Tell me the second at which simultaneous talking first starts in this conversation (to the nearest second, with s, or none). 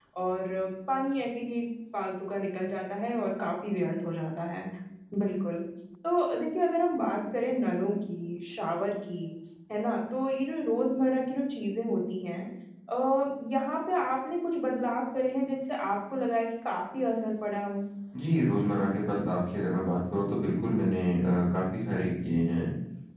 none